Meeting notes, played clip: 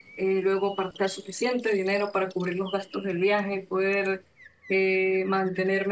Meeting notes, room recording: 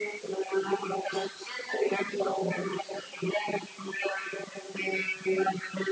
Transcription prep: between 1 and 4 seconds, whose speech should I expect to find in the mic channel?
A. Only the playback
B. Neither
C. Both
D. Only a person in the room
A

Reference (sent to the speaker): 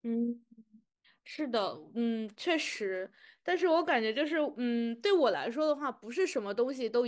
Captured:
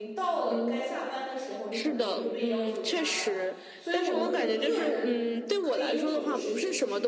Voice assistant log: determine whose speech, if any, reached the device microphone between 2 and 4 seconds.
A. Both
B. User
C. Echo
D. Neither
A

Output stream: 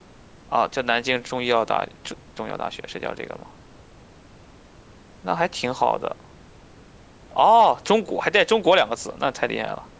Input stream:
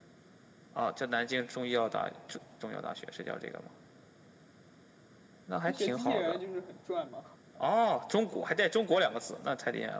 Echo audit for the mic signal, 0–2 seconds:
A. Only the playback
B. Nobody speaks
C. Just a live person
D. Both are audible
A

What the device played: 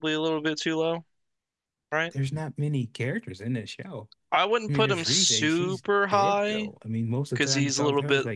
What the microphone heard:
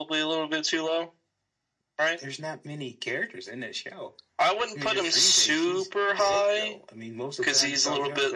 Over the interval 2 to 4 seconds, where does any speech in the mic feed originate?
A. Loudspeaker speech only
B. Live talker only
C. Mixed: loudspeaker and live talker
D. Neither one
A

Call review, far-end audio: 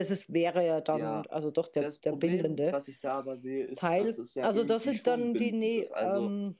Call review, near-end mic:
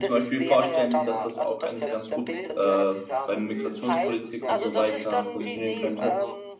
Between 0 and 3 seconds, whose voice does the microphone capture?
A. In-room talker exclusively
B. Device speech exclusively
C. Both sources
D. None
C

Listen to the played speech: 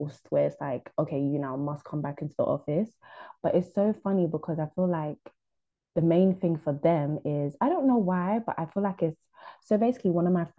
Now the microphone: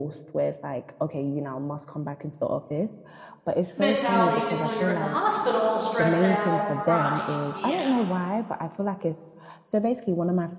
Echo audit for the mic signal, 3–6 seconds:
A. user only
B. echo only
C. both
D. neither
C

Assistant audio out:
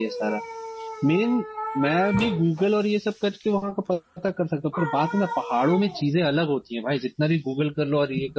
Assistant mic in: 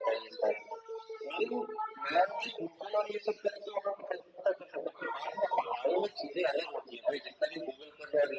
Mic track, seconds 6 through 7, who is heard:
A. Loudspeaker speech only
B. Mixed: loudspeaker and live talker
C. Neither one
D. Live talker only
A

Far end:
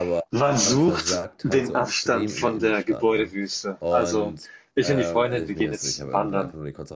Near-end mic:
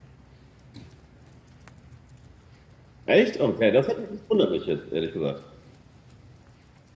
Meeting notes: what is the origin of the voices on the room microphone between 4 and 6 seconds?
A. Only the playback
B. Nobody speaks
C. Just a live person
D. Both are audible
C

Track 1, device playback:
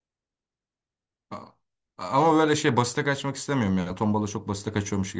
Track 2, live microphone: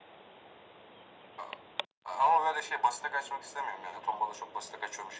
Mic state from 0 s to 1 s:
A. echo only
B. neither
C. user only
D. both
B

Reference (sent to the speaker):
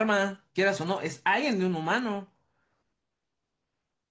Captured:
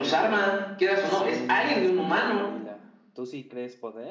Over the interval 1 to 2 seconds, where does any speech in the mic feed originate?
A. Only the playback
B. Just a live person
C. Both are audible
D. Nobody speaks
C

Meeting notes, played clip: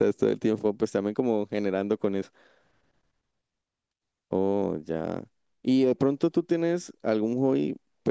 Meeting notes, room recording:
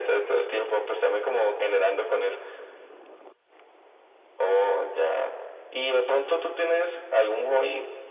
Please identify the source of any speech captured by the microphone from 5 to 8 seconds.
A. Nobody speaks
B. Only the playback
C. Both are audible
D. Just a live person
B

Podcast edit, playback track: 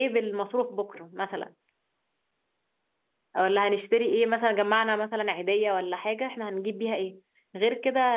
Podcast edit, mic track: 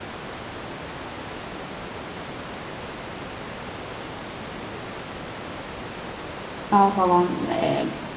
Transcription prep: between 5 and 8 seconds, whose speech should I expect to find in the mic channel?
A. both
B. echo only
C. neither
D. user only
D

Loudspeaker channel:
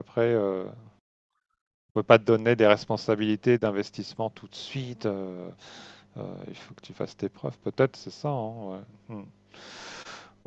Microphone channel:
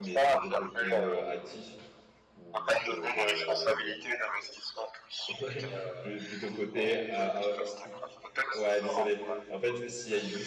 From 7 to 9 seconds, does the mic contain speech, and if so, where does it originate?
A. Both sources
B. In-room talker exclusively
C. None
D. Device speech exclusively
A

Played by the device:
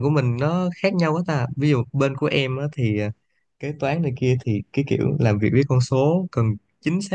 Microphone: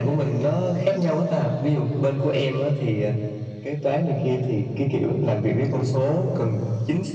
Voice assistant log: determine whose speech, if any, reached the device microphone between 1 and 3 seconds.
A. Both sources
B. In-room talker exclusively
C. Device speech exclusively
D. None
C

